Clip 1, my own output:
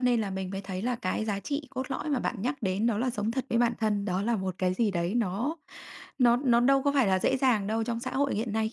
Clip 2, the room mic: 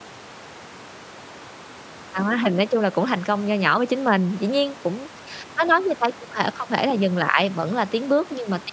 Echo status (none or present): none